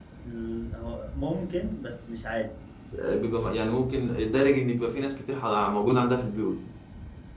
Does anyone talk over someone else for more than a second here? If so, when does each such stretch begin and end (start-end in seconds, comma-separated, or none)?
none